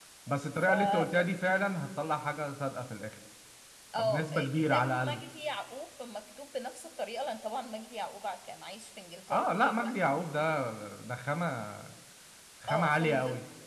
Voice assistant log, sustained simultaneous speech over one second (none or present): present